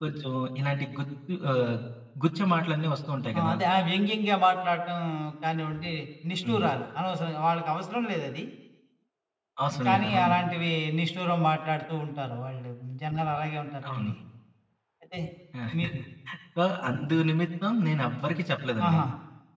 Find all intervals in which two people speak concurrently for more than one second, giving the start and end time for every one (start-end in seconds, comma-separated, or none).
none